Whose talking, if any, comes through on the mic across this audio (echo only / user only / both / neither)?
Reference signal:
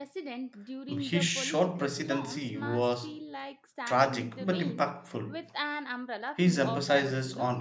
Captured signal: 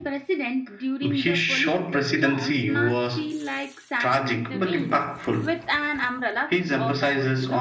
echo only